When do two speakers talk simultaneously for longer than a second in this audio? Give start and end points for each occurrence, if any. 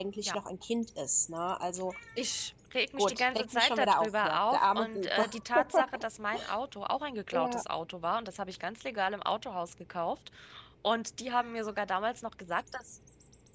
3.0-5.3

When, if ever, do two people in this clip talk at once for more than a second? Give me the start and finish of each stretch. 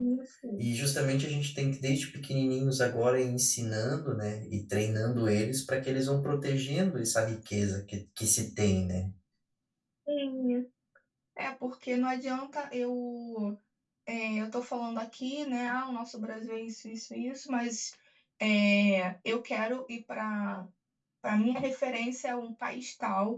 none

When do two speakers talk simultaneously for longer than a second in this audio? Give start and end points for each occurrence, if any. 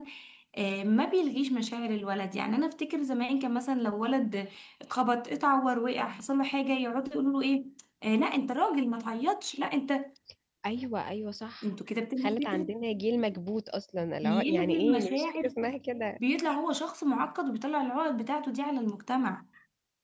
14.2-15.5

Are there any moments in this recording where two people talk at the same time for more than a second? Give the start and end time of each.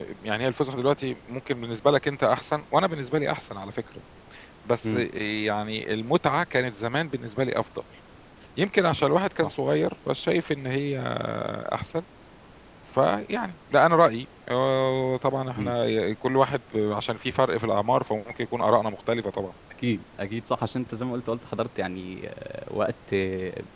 none

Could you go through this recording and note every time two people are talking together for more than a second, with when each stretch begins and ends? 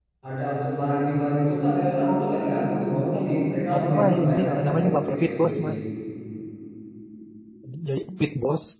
3.7-5.6

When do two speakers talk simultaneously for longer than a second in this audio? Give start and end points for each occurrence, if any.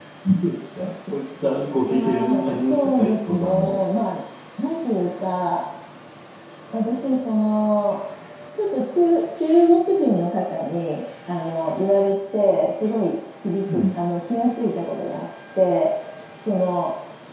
1.9-3.8

